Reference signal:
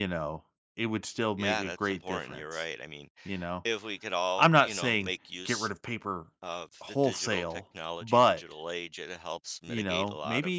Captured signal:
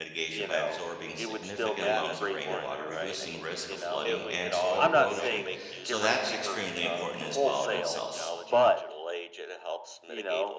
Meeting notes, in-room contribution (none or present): present